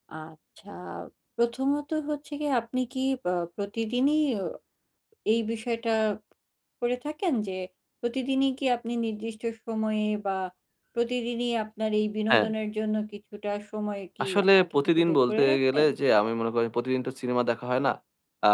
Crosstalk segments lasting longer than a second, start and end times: 14.2-15.9

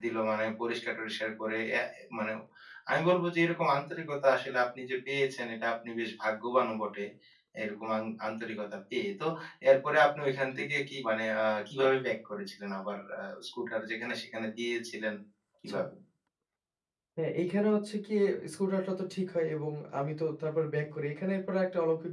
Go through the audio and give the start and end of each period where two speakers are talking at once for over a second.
none

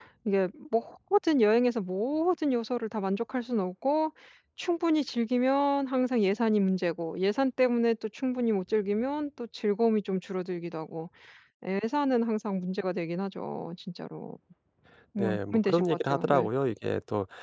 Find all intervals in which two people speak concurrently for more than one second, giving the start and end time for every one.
15.2-16.5

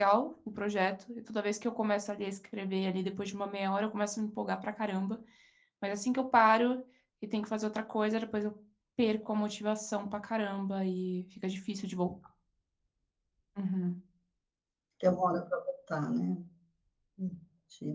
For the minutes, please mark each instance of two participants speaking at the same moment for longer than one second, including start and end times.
none

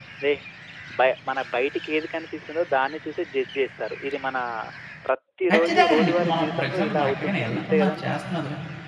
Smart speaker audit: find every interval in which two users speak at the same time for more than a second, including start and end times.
5.5-8.1

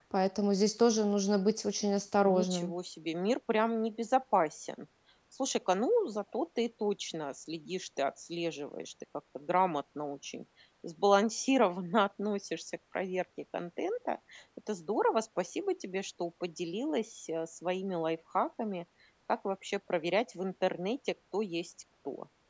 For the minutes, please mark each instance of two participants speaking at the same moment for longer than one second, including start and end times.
none

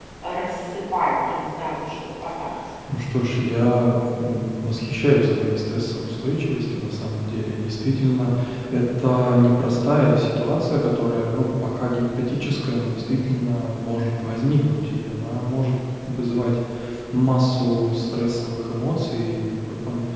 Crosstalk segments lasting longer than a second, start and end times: none

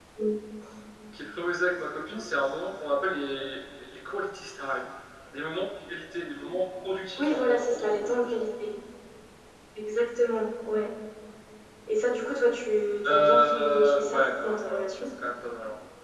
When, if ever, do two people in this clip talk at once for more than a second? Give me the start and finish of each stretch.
7.2-8.4, 13.0-14.8

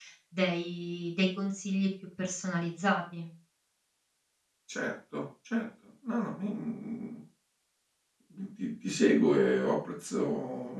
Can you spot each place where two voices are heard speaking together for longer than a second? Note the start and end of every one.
none

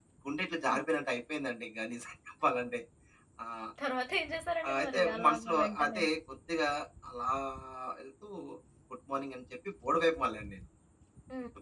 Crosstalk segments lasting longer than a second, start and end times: 4.7-6.0

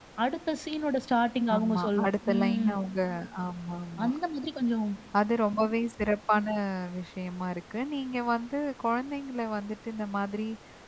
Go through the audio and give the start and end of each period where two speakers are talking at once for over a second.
1.6-2.8

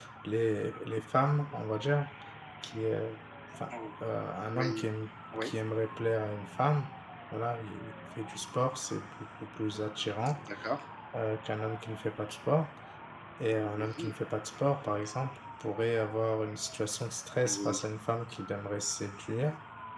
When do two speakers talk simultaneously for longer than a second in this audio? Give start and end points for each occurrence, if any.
none

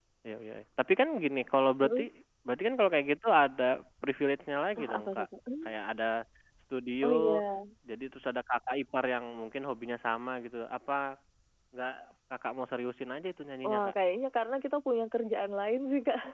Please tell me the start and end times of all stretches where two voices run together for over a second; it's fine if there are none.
none

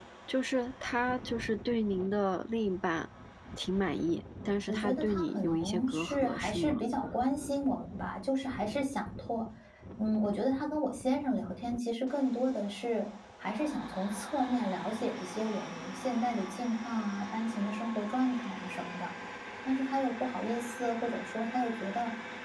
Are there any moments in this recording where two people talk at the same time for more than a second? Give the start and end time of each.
4.7-6.8

